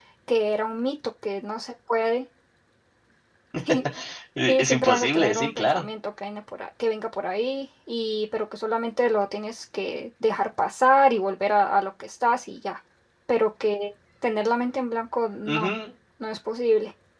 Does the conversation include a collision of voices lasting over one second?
Yes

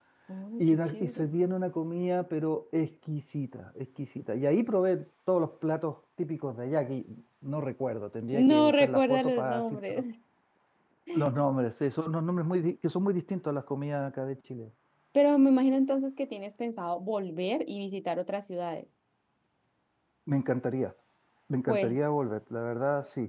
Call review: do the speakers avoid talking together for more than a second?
No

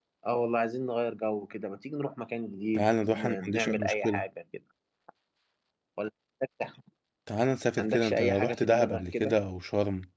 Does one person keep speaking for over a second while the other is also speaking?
Yes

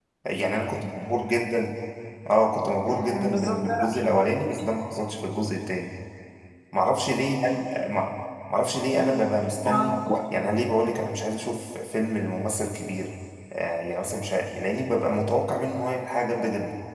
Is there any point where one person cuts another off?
Yes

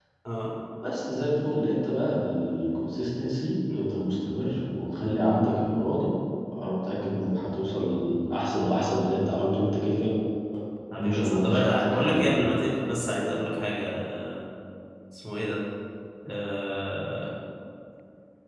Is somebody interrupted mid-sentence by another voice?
Yes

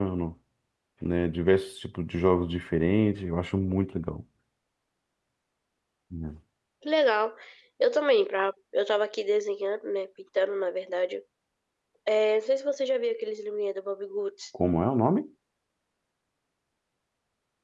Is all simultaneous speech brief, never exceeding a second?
Yes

